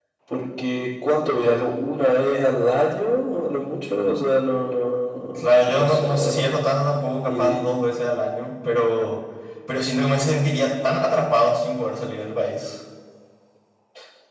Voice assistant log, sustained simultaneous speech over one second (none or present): present